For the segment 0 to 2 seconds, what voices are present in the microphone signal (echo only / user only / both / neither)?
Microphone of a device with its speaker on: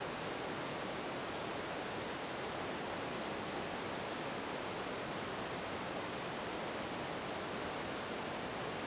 neither